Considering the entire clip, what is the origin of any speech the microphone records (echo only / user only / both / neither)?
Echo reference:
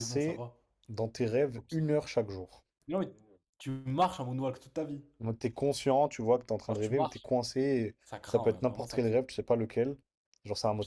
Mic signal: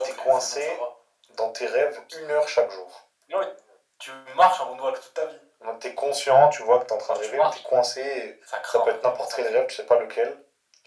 echo only